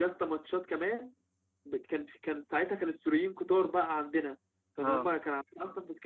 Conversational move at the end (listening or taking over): listening